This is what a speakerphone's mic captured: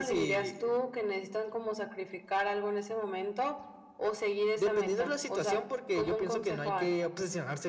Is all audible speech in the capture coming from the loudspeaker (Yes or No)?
Yes